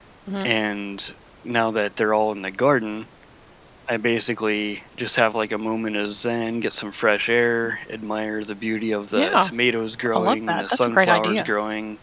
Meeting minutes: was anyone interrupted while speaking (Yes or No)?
Yes